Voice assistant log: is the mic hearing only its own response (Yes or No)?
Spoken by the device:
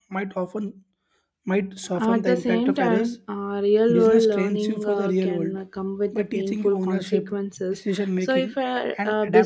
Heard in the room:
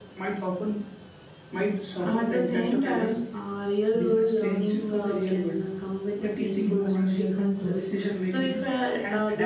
No